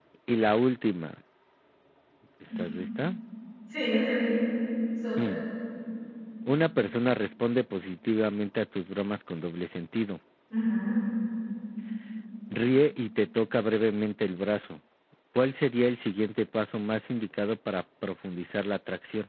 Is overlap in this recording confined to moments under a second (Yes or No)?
Yes